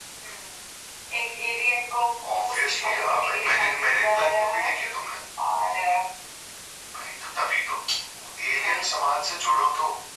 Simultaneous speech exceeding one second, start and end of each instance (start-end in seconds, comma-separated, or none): 2.5-4.7